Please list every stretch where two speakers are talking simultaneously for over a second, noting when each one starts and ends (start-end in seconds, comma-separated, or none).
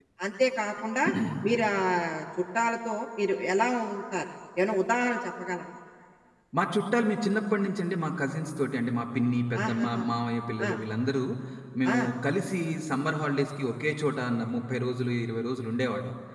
none